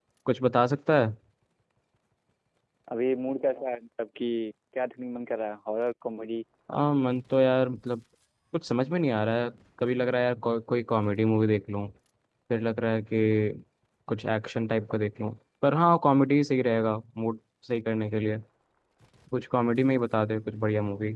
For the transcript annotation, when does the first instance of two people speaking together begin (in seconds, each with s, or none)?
none